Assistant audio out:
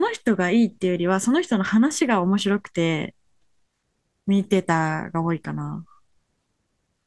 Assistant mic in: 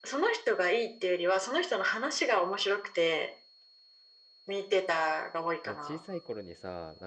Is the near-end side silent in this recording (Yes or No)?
No